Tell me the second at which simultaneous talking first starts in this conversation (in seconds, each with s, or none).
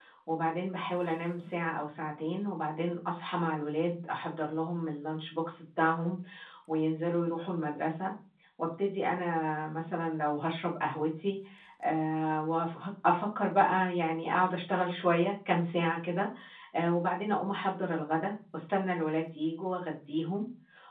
none